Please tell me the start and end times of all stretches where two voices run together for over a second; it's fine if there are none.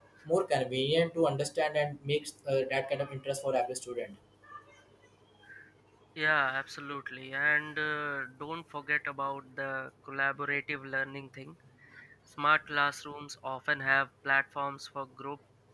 none

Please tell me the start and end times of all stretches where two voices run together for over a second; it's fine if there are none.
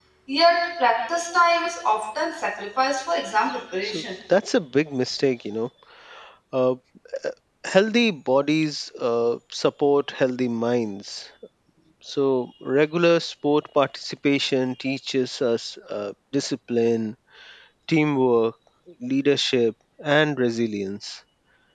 none

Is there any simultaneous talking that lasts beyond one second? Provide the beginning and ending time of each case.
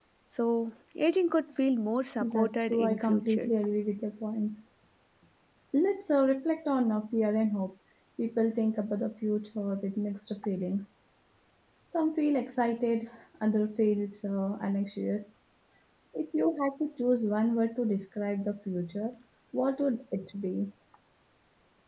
2.2-3.5

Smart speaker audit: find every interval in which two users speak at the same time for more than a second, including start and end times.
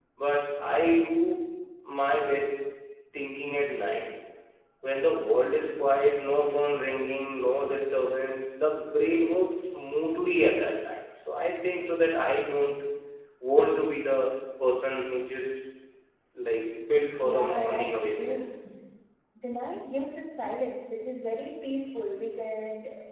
17.2-18.5

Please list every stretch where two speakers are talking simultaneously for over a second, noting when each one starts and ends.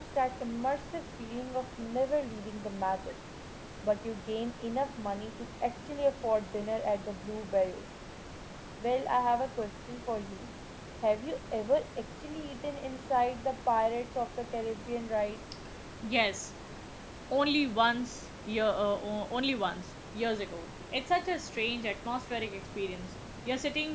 none

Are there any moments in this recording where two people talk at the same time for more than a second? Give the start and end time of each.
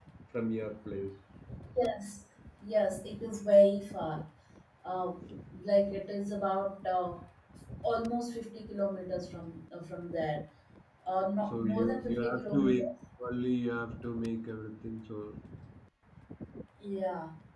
11.5-12.8

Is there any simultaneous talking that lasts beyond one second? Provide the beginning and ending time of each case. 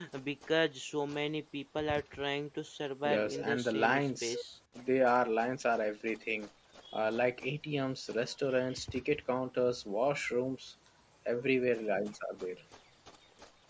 3.0-4.3

